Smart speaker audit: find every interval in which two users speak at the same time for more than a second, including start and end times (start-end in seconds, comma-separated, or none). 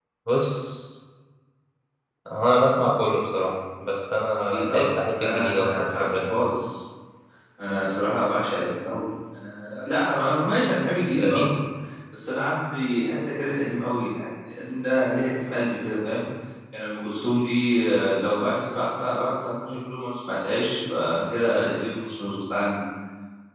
4.5-6.3